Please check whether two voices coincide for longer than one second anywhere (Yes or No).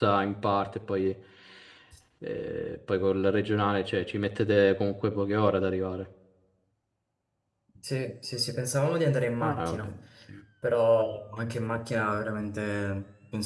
No